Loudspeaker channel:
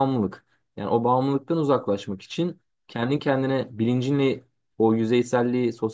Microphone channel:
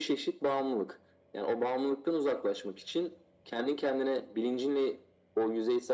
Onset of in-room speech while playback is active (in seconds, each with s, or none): none